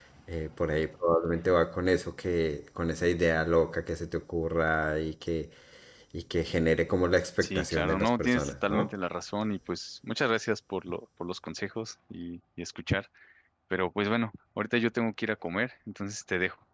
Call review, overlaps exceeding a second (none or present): present